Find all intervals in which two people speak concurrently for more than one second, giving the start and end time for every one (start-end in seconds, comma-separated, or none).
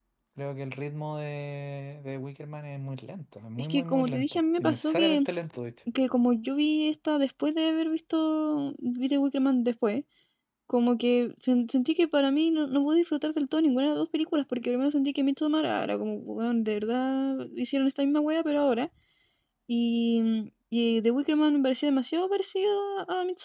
3.6-5.2